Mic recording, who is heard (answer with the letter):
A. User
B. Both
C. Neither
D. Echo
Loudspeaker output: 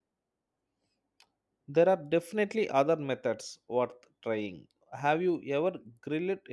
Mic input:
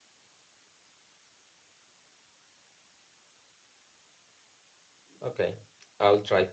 A